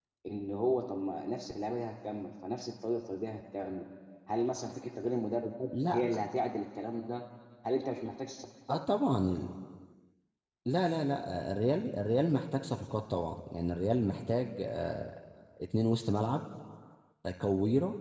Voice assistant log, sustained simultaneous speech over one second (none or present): none